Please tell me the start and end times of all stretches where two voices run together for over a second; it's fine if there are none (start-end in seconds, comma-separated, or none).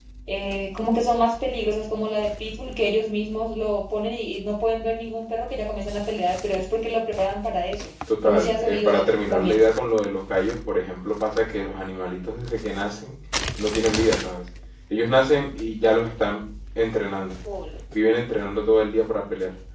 8.2-9.6